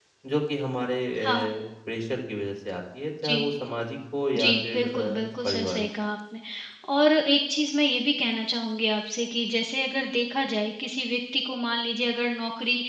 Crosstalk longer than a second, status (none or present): present